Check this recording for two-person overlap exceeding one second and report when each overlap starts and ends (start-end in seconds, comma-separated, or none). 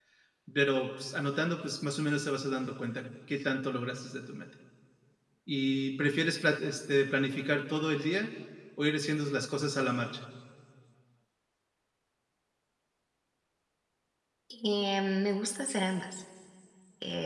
none